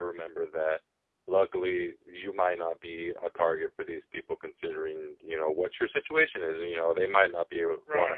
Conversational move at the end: taking over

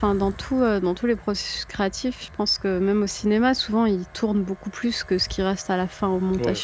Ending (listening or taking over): taking over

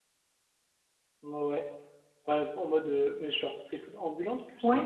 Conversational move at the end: taking over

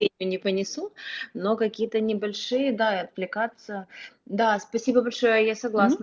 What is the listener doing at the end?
listening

